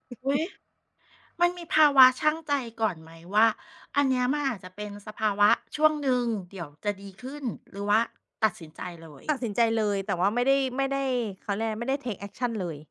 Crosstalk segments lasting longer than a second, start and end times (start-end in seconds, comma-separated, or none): none